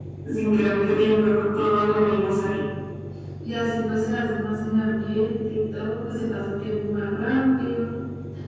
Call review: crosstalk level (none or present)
none